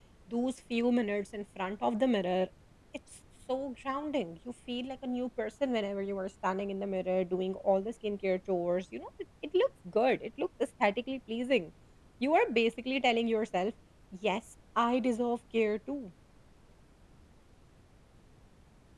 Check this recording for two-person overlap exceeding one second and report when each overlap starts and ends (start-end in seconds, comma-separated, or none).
none